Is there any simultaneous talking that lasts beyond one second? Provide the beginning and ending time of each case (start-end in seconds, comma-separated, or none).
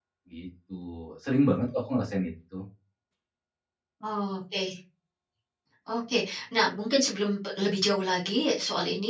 none